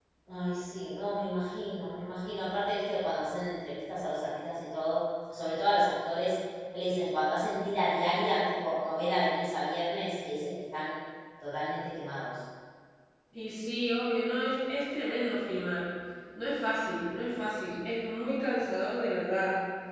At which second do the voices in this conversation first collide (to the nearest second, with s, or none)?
none